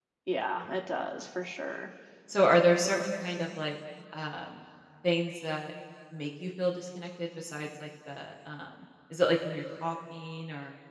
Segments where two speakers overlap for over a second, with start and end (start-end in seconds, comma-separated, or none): none